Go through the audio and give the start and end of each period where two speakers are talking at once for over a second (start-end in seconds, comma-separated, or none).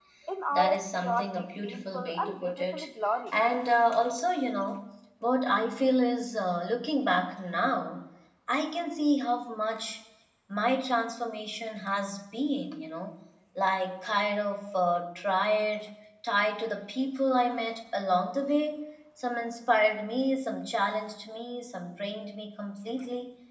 0.5-2.9